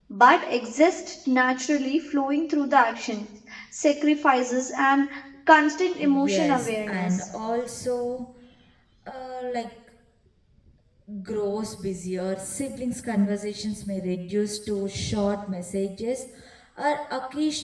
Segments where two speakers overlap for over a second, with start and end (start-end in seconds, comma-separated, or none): 6.0-7.2